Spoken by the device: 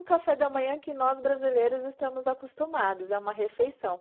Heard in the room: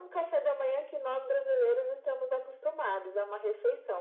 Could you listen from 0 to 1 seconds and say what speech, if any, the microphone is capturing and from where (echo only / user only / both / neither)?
echo only